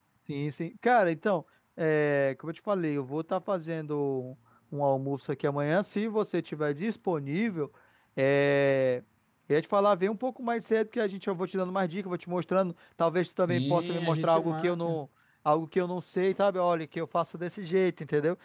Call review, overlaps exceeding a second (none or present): present